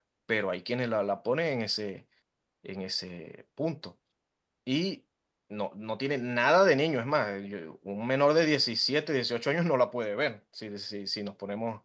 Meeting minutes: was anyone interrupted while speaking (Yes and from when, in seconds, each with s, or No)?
No